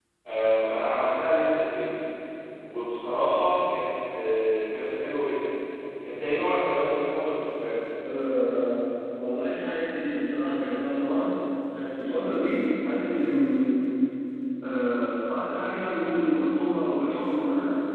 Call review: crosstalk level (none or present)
none